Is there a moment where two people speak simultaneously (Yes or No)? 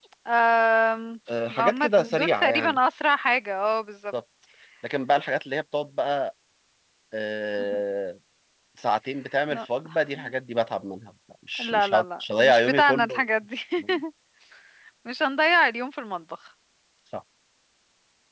Yes